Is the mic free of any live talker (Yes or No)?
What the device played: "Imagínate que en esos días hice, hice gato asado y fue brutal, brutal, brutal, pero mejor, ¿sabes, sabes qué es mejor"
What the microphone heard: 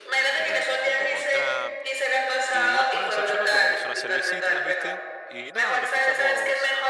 No